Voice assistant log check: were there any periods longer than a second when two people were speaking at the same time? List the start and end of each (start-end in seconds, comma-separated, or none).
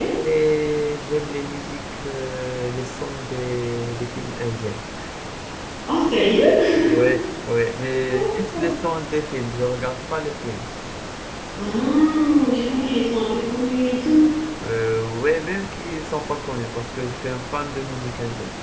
none